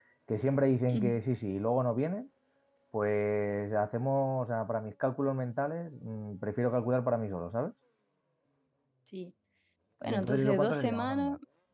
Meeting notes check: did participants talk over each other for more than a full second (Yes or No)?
Yes